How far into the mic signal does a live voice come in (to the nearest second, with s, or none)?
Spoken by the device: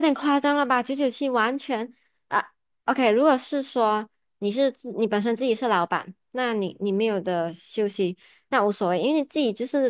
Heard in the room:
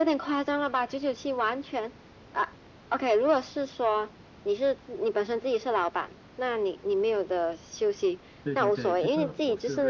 8 s